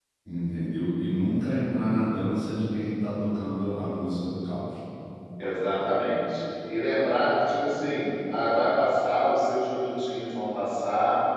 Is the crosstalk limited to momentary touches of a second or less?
Yes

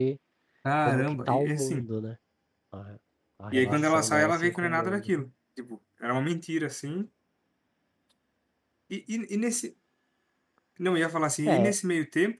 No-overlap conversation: No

